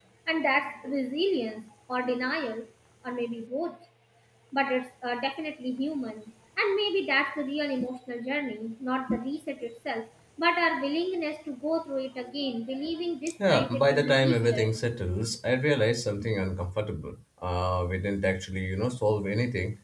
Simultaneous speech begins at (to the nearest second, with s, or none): 13 s